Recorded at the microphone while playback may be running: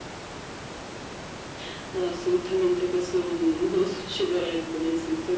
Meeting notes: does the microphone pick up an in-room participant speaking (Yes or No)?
No